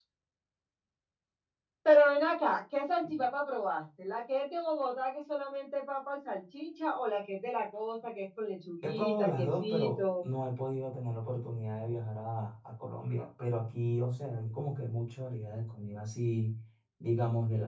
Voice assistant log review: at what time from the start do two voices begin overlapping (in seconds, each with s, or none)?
8.8 s